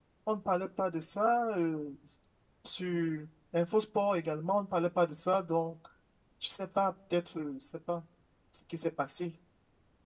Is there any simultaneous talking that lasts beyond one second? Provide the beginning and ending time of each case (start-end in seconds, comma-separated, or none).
none